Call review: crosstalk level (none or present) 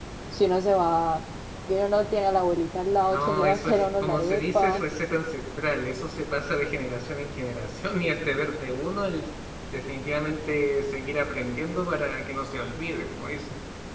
present